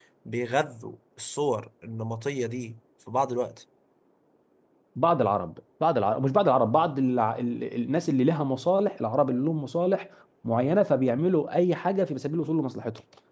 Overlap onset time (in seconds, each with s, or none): none